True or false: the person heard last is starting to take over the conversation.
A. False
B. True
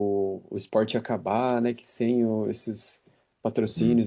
A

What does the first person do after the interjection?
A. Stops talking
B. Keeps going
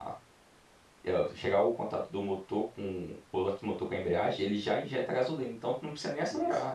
A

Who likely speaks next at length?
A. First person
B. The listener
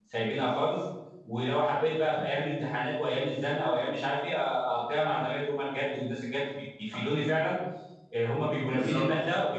A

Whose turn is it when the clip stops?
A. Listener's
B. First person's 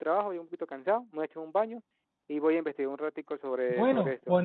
A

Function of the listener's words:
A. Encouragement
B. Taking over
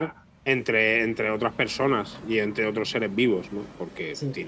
A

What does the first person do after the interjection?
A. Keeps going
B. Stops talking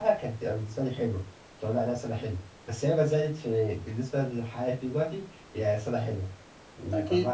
A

